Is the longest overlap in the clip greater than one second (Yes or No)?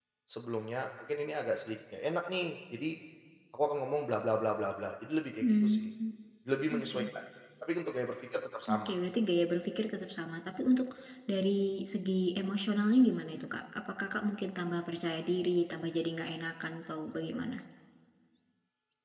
No